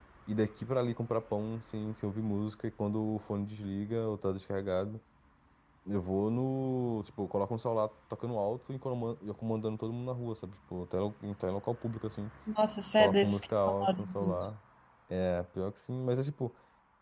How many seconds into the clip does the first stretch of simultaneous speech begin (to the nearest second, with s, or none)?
13 s